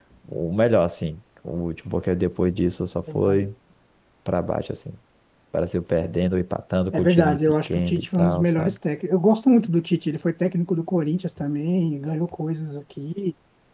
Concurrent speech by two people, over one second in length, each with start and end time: 6.9-8.8

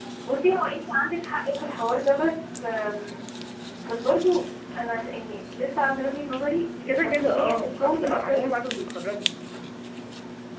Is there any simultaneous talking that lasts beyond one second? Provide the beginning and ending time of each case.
6.9-9.0

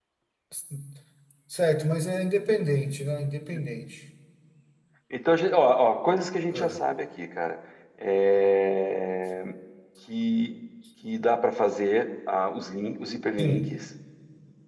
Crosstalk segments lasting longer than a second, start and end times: none

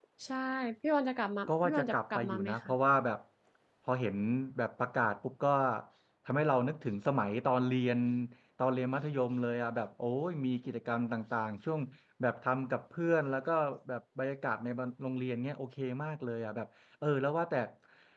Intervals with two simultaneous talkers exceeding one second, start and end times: 1.5-2.7

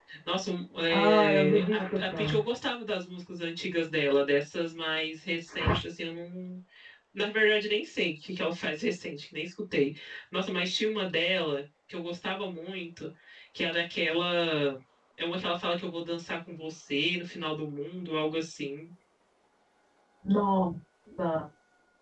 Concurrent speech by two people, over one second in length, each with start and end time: 0.9-2.4

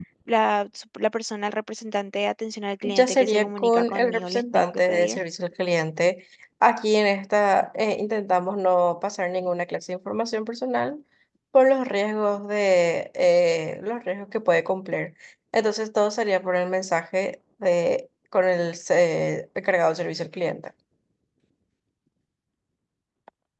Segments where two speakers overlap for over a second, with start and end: 2.8-5.2

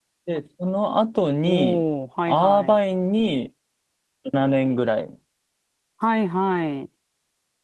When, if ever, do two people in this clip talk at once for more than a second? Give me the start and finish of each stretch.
none

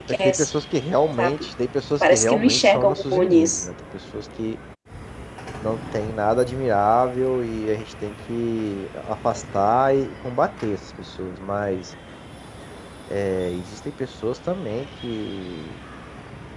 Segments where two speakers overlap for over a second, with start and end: 2.0-3.7

